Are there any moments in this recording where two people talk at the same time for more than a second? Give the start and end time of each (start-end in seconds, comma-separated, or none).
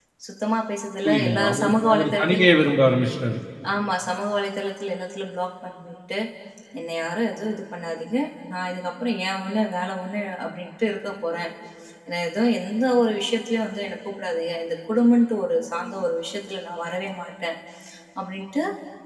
1.0-2.4